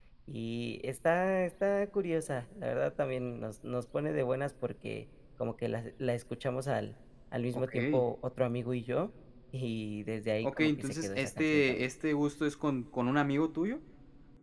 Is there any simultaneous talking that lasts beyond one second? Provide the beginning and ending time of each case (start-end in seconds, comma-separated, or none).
10.4-11.9